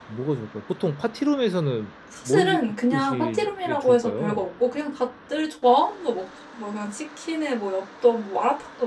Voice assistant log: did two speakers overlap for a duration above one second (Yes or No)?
Yes